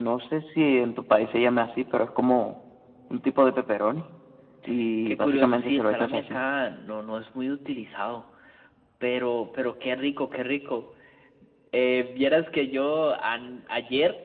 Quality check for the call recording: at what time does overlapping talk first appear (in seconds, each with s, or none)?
5.1 s